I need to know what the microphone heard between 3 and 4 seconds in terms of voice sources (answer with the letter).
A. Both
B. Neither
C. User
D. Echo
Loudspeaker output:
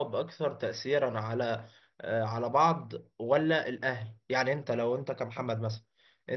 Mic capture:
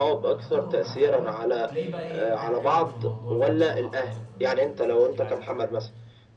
A